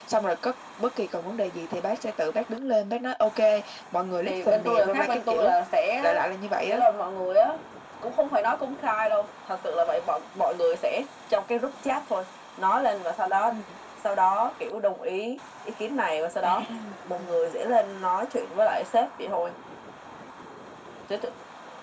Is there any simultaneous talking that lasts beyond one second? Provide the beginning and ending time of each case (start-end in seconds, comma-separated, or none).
4.2-5.5